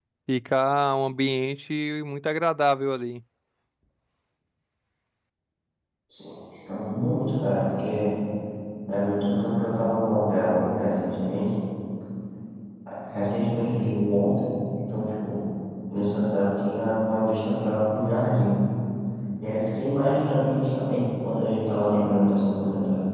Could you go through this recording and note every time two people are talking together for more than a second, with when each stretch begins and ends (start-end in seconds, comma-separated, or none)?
none